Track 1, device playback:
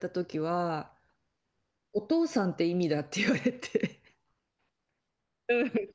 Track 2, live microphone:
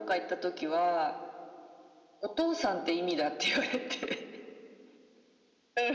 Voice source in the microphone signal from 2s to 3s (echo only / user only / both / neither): echo only